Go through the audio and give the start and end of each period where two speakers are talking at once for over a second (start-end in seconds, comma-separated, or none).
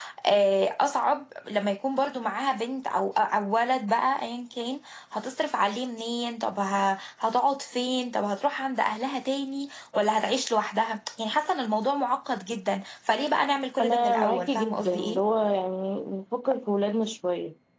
13.8-15.2